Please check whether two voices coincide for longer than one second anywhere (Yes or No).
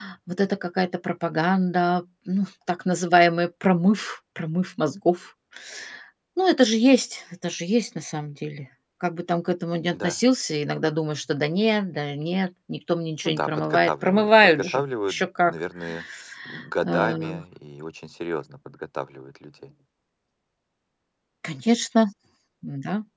Yes